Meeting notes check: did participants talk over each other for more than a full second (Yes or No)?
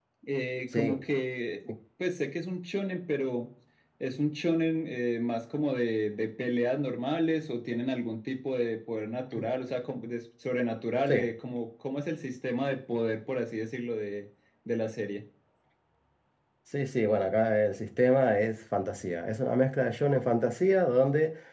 No